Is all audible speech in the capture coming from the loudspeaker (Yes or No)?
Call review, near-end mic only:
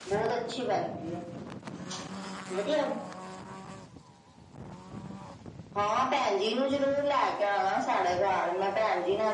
Yes